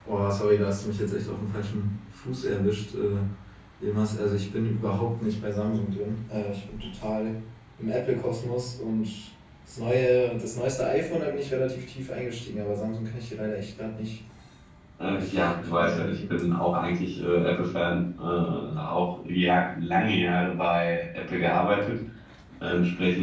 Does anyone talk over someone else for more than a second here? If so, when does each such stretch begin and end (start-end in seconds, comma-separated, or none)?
15.1-16.3